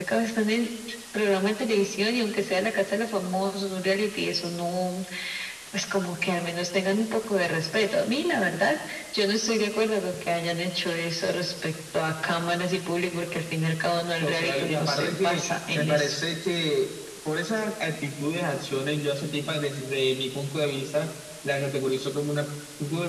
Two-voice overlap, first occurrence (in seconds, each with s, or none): 14.2 s